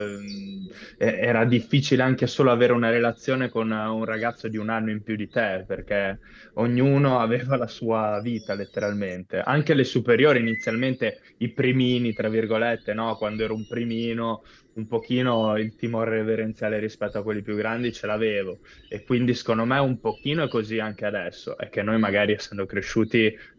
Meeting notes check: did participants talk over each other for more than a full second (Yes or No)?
No